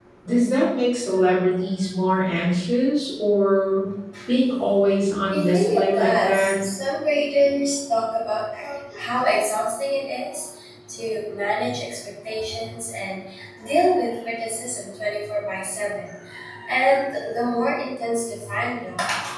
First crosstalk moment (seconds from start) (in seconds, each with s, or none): 5.3 s